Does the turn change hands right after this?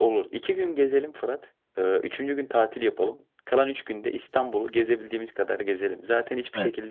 No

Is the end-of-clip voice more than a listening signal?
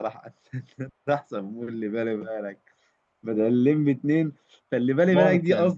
No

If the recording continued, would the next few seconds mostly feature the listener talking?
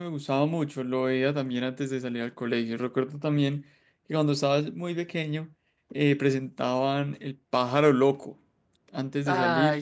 No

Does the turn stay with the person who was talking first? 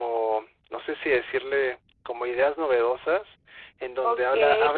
No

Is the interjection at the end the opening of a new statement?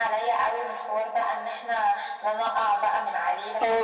Yes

